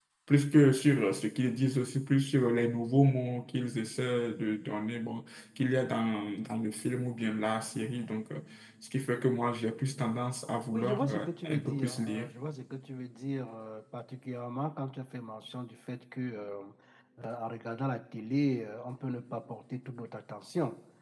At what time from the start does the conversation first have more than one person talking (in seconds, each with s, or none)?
10.7 s